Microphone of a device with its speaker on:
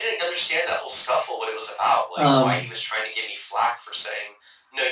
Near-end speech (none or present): present